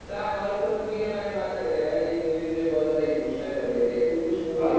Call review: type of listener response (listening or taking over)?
taking over